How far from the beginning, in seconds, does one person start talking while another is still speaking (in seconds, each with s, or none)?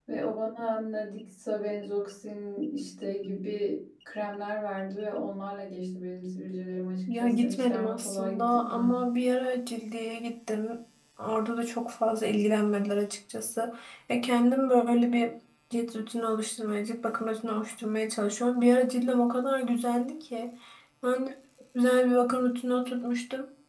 7.1 s